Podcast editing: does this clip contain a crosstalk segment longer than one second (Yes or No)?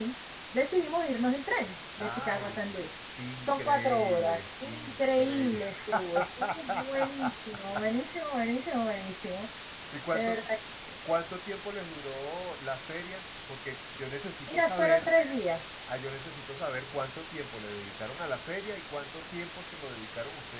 Yes